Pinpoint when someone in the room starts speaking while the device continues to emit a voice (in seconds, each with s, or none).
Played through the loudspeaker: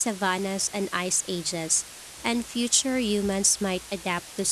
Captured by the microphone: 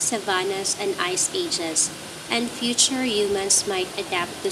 none